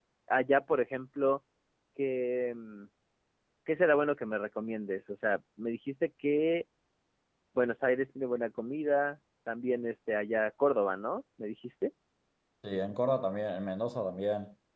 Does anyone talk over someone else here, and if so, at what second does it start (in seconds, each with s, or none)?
none